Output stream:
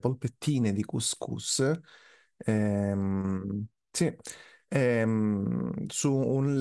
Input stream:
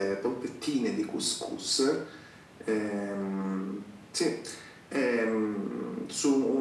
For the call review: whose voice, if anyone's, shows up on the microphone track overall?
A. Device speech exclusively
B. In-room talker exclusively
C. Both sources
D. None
A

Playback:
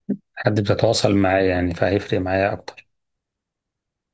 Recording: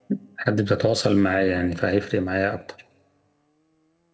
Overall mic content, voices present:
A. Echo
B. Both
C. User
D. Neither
A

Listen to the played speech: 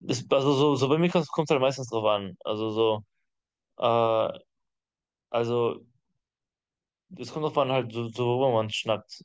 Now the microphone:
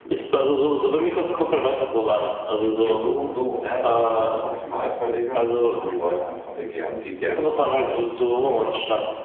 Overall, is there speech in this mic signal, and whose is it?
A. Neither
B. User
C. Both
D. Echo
C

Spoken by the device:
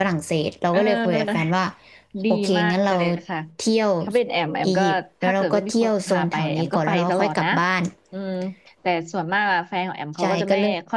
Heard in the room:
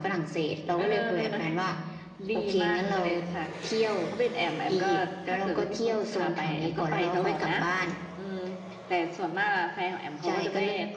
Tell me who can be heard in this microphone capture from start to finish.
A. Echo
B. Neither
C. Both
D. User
A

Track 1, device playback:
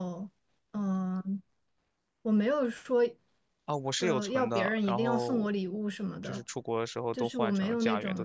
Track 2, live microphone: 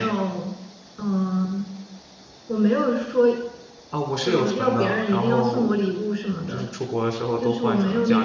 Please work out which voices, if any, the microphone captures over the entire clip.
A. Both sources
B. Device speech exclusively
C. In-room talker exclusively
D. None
B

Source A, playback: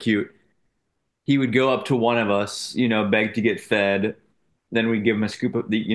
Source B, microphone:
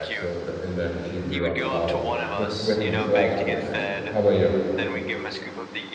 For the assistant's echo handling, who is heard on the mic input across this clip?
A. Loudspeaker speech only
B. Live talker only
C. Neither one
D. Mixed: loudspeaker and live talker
D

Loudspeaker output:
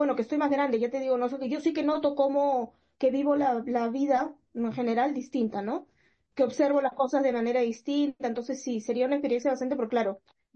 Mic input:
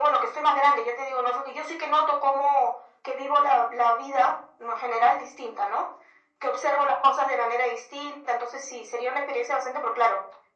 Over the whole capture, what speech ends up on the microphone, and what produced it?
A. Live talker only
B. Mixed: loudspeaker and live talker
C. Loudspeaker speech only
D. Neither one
C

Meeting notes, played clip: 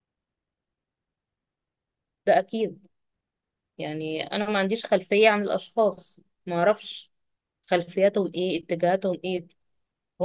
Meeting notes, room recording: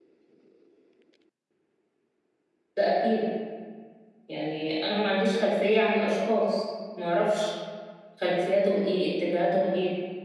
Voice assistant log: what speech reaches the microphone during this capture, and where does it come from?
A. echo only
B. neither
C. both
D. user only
A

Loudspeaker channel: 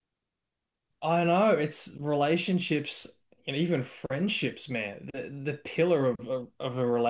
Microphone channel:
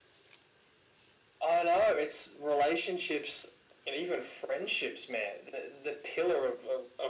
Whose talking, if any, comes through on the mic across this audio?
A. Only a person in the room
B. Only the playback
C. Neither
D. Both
B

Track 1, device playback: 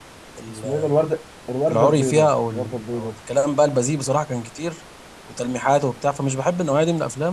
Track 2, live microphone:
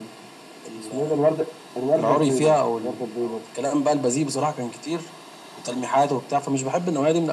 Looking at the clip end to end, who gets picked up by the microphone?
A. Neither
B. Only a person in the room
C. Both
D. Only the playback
D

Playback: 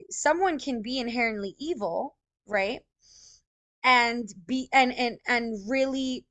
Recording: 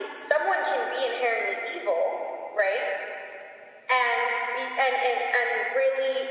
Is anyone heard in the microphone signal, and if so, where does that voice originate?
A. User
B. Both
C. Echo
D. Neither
C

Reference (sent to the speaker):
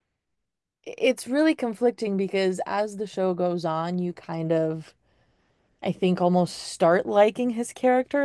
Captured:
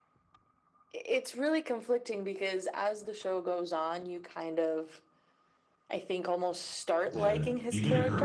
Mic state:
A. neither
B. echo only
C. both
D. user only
C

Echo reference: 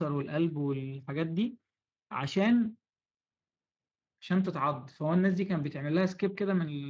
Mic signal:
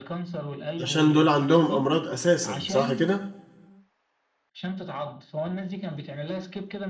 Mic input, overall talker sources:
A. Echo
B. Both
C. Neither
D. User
B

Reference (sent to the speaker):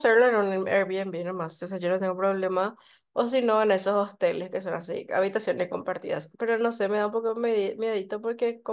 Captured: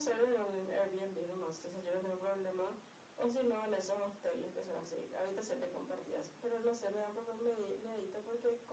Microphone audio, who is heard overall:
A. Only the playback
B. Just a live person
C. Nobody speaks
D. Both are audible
A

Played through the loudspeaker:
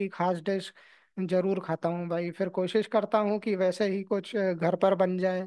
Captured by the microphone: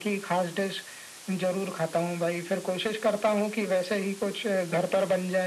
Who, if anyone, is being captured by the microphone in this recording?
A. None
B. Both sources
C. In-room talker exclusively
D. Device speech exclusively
D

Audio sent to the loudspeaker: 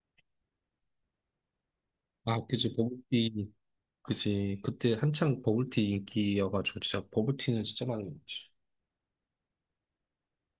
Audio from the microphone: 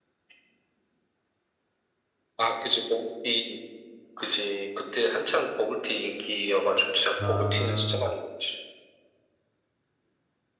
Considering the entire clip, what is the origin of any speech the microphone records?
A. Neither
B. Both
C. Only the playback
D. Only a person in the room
B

